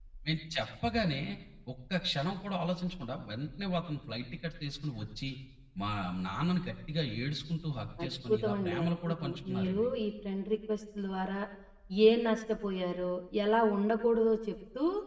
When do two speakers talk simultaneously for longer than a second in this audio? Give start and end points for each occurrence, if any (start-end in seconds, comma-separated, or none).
8.0-9.9